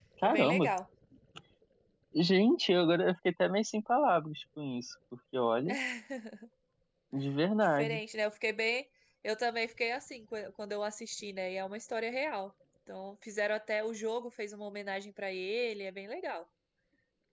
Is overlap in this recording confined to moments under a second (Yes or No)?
Yes